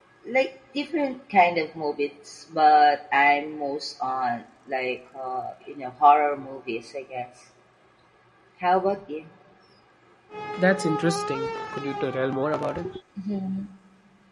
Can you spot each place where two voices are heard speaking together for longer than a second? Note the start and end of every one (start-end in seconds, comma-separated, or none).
none